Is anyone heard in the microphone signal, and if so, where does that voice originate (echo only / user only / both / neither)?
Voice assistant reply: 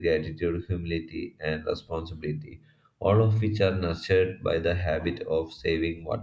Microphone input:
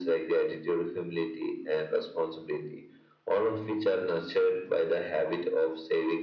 echo only